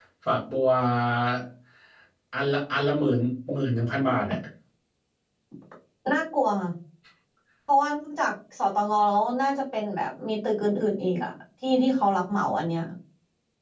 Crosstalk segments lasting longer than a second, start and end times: none

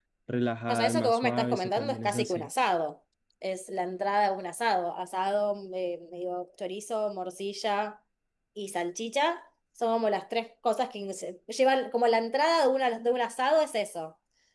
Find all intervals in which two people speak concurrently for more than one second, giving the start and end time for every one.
0.7-2.5

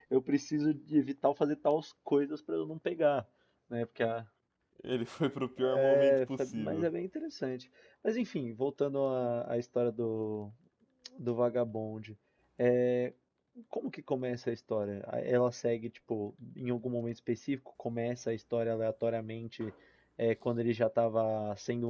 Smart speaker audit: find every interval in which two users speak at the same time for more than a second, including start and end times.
5.7-6.9

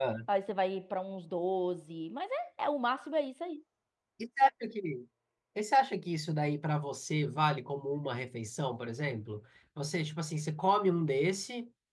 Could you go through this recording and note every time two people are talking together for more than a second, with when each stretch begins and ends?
none

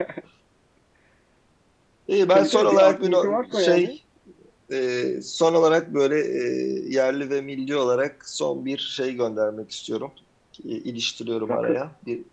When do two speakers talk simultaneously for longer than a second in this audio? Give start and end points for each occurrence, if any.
2.3-3.9

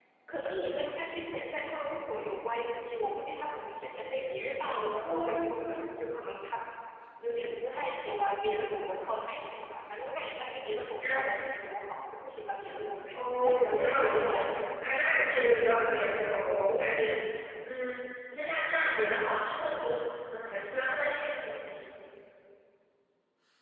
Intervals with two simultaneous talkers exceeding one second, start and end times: 13.1-14.5

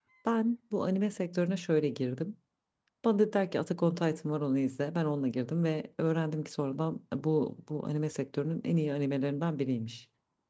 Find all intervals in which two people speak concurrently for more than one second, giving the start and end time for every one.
none

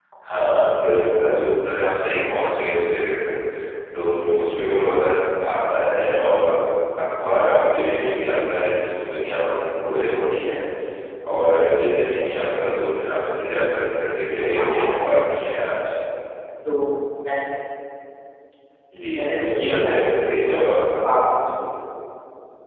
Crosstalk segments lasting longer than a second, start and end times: 19.1-20.5

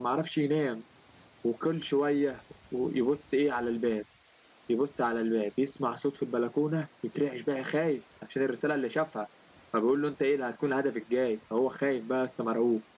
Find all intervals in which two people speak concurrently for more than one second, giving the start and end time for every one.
none

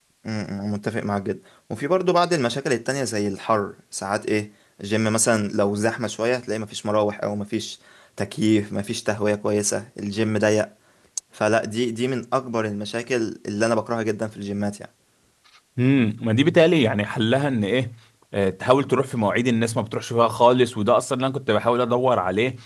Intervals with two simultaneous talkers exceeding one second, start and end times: none

